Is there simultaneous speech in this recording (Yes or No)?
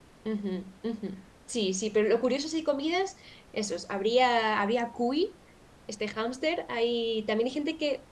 No